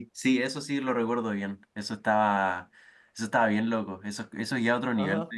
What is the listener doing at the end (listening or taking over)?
taking over